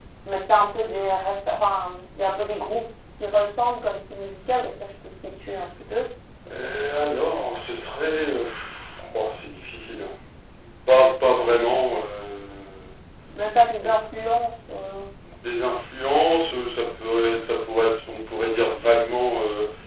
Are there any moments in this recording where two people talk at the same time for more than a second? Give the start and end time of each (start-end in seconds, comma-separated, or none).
none